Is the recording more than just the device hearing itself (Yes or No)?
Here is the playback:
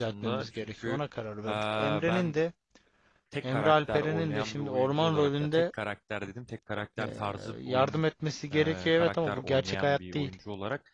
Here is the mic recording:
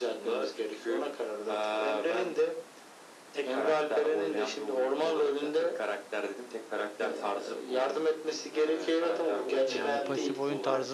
Yes